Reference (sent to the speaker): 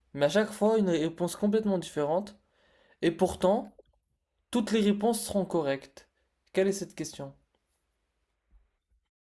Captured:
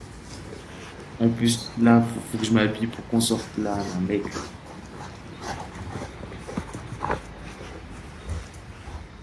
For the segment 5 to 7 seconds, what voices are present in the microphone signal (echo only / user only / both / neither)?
neither